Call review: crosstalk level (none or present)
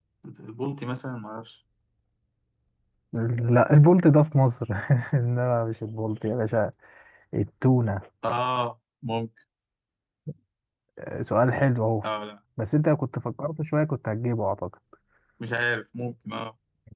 none